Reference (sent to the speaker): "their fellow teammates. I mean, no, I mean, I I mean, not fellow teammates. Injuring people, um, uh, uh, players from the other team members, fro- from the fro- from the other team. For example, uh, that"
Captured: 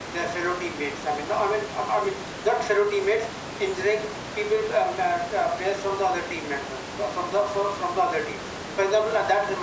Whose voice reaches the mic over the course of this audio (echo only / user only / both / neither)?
echo only